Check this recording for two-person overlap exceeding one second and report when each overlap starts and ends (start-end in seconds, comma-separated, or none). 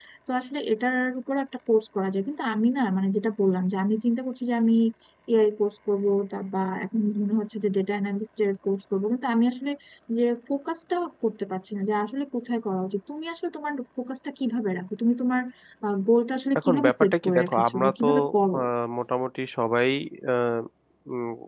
16.6-18.1